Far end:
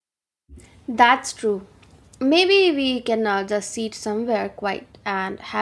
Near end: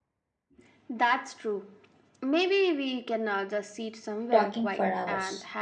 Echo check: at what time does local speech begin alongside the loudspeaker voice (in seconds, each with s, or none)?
4.3 s